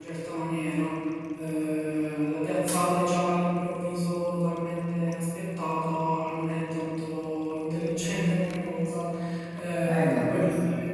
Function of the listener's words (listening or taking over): listening